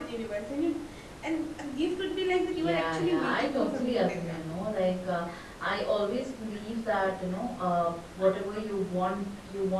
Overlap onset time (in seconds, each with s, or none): 2.5 s